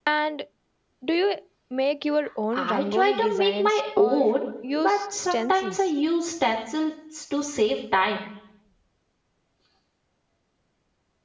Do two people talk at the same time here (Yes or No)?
Yes